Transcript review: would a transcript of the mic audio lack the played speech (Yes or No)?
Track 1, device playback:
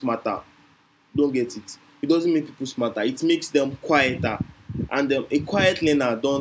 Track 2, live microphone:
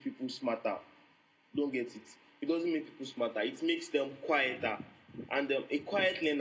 No